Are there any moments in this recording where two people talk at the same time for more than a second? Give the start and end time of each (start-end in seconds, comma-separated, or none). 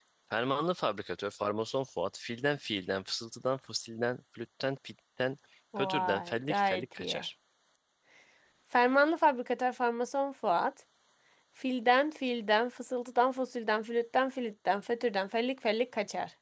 5.8-7.2